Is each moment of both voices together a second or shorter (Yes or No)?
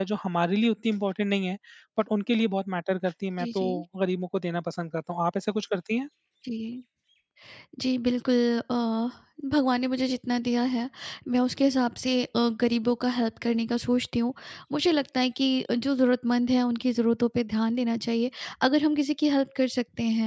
Yes